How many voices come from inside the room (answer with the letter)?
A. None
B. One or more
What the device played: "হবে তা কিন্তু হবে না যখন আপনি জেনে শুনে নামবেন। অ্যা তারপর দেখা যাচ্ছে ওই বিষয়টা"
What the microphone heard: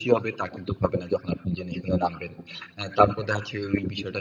A